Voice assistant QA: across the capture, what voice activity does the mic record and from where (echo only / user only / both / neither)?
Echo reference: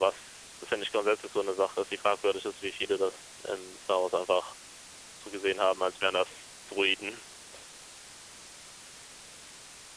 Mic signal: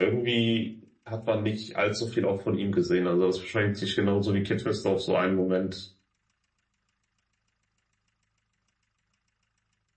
user only